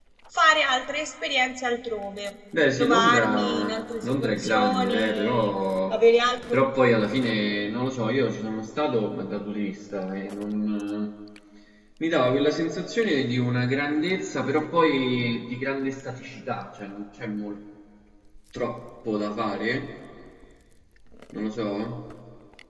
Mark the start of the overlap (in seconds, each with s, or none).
2.5 s